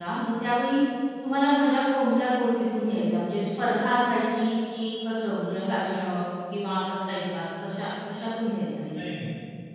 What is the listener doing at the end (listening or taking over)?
taking over